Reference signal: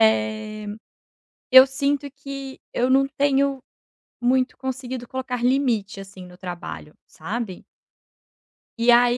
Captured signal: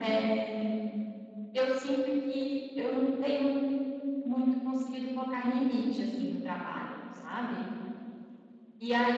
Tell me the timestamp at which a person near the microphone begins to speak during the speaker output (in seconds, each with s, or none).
none